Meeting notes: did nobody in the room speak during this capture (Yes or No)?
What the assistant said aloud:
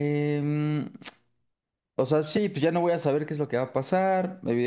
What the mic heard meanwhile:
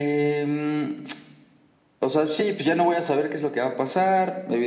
Yes